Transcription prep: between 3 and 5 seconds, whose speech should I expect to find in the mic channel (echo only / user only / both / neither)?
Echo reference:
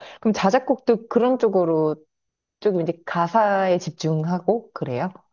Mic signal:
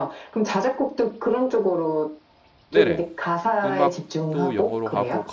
both